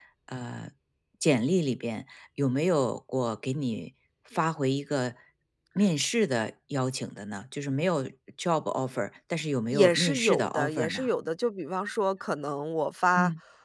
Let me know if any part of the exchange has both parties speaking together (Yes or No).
Yes